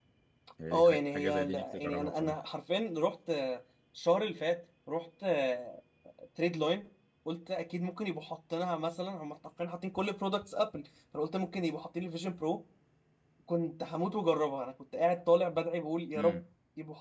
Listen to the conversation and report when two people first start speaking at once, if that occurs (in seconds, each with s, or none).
0.7 s